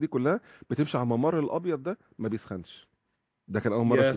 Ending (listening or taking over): listening